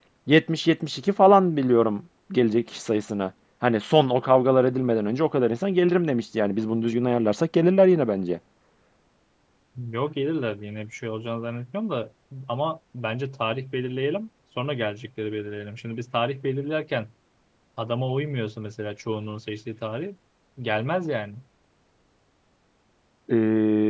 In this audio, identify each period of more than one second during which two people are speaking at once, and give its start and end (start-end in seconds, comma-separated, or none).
none